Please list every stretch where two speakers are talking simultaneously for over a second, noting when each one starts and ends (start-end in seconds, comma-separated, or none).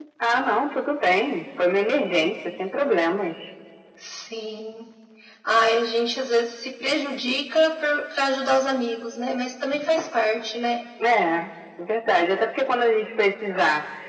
none